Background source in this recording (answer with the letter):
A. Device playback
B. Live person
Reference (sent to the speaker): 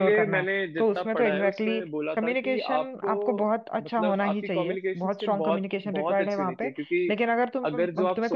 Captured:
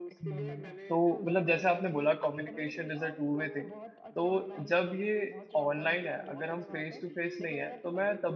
A